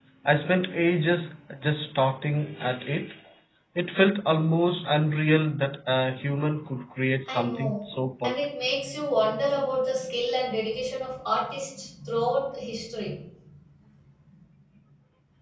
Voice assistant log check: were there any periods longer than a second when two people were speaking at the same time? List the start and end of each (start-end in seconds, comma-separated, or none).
none